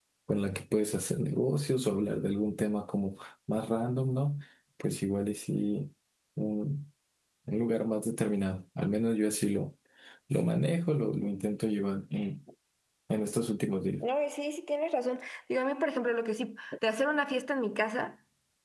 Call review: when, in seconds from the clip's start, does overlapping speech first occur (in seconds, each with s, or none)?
none